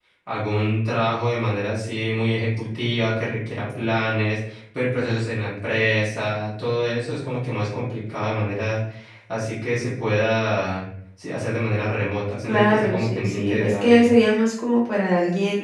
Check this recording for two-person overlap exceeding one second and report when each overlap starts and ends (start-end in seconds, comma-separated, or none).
12.4-14.1